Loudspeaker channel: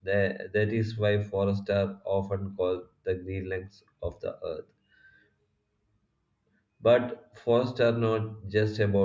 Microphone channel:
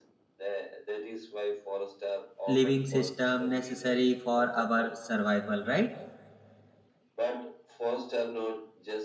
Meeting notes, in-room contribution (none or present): present